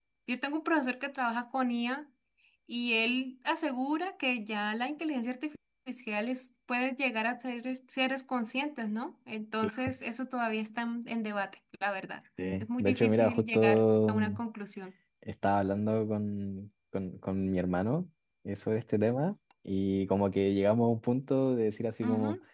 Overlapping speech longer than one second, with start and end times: 12.6-14.3

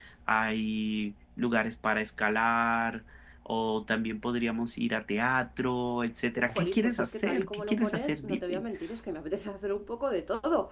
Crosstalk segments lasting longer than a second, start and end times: 6.5-8.6

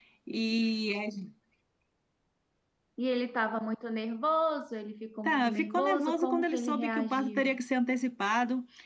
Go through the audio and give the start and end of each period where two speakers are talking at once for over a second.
5.2-7.6

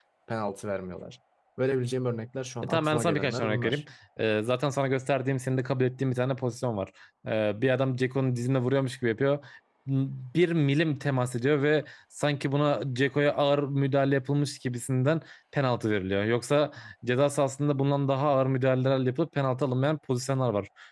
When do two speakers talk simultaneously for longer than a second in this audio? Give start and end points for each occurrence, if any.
2.6-3.8

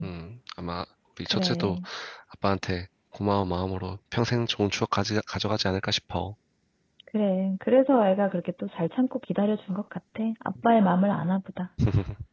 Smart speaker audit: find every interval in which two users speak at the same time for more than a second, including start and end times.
none

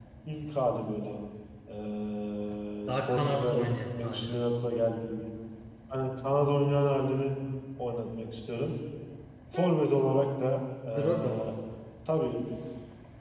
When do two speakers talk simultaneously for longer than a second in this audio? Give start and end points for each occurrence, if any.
2.9-4.3

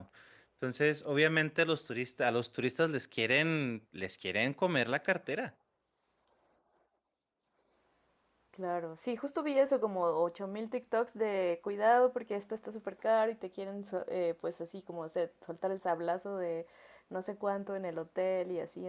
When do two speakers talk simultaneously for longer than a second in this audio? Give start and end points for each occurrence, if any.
none

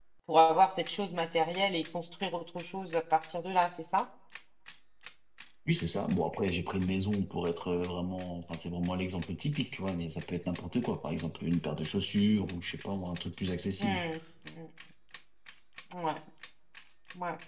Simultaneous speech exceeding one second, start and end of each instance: none

